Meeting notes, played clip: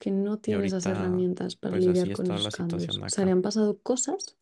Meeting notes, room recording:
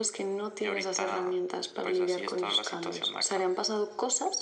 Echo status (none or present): present